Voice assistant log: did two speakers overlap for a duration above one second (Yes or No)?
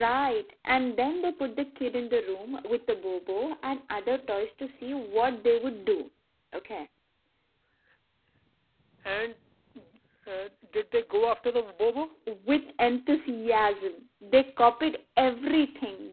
No